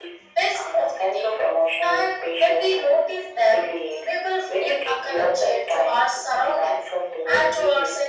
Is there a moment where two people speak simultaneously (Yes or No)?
Yes